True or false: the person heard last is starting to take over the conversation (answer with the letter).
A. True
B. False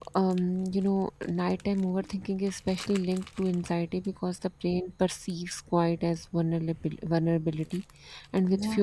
B